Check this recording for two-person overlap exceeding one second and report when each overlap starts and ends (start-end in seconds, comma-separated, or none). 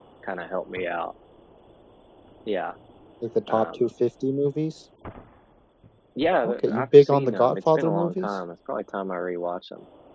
6.4-8.3